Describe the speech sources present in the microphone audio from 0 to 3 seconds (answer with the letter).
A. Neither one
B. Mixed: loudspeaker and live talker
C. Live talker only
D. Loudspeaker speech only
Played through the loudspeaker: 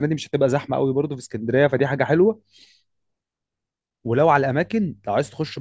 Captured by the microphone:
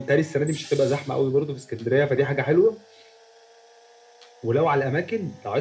D